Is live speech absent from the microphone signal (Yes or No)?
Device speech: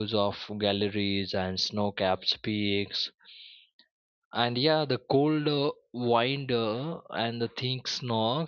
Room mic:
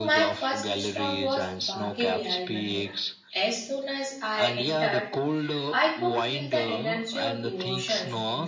No